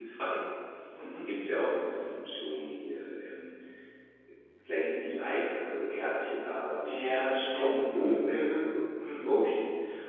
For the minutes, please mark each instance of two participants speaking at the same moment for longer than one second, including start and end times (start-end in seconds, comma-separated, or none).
6.8-8.6